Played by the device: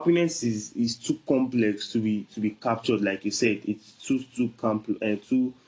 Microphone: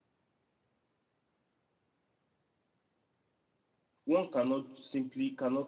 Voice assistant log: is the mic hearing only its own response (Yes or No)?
No